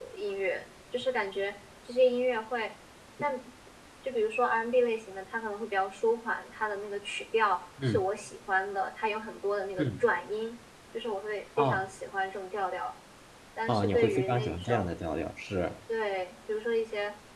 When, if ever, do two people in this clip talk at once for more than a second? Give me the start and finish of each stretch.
13.7-14.9

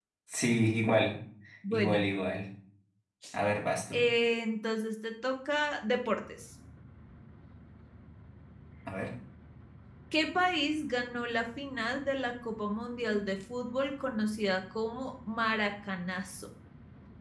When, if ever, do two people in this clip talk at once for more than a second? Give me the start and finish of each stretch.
none

